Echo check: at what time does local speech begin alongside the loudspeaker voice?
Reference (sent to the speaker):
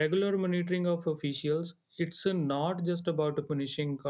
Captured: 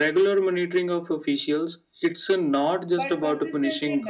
2.9 s

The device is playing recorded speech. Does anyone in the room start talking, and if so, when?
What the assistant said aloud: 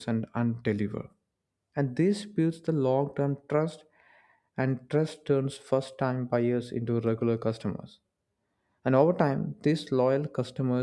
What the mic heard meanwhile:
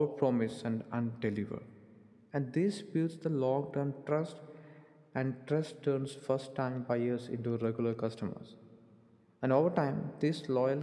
none

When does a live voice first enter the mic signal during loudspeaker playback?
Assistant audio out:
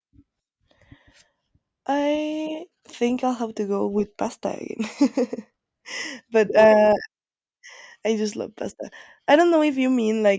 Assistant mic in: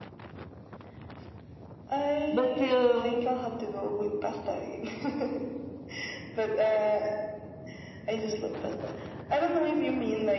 2.3 s

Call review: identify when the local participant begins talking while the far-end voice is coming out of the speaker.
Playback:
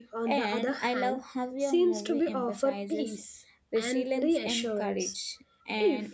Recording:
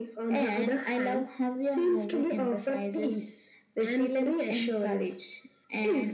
none

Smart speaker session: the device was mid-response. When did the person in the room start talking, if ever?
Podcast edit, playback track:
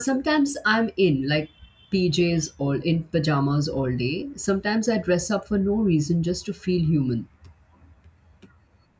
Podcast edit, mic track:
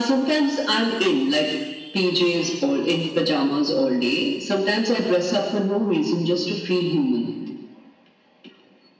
none

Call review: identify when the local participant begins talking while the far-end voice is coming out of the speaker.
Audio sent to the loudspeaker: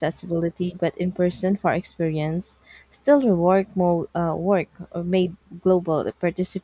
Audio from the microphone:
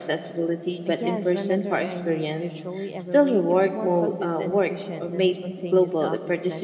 0.8 s

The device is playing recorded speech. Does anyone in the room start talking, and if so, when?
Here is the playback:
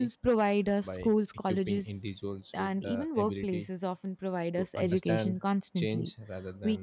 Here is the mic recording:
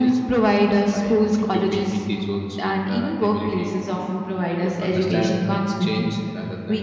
none

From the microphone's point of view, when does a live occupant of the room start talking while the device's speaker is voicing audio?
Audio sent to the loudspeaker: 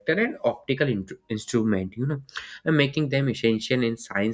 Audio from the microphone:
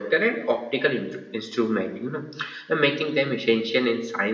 none

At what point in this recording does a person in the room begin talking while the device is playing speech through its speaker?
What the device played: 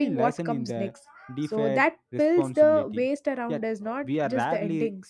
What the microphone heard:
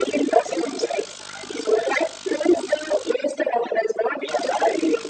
none

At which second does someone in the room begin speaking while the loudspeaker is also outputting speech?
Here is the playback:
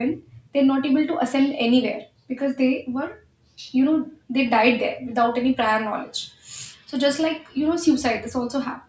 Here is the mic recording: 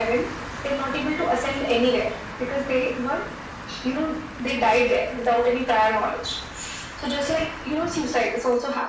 none

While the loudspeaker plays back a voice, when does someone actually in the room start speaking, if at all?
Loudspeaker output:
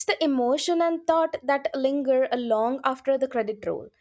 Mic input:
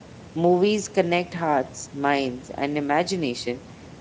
0.3 s

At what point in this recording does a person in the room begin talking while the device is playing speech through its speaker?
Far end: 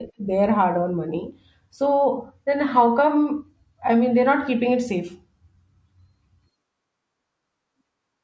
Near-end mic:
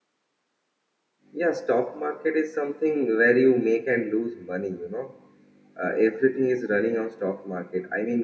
1.3 s

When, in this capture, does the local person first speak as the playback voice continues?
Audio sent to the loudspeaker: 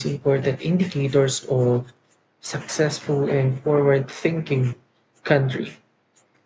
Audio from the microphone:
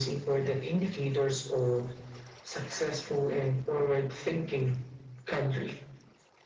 none

